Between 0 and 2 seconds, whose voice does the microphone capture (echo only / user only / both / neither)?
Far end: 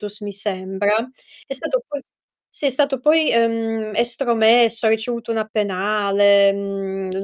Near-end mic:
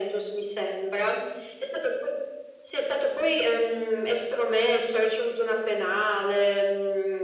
echo only